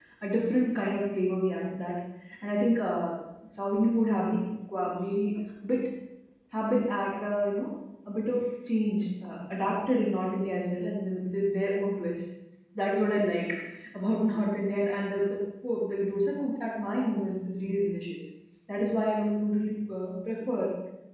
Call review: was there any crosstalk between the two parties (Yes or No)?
No